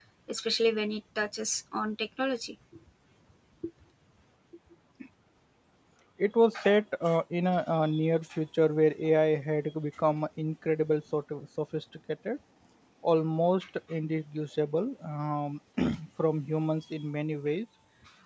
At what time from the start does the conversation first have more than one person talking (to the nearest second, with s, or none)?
none